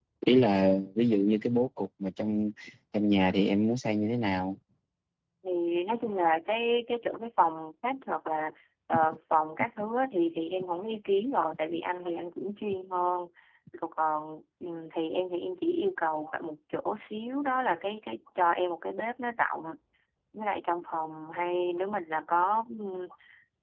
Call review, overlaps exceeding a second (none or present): none